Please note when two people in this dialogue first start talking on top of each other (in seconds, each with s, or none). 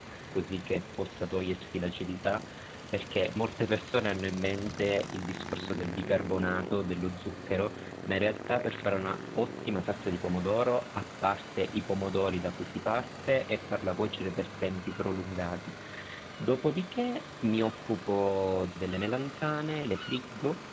none